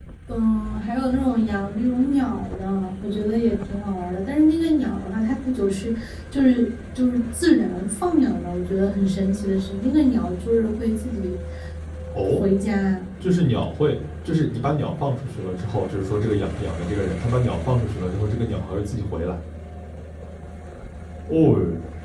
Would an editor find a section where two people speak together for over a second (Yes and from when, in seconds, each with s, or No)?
No